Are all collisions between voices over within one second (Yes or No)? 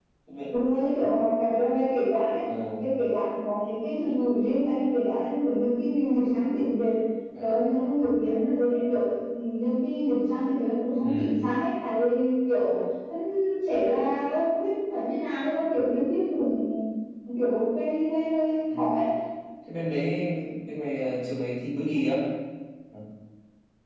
Yes